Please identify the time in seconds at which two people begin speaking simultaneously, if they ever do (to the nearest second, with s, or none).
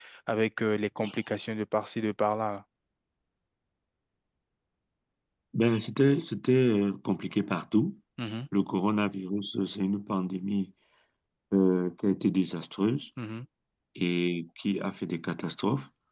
none